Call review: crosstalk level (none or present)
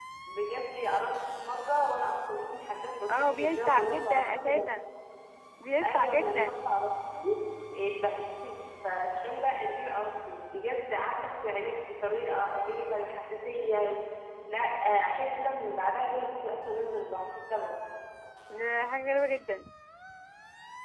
present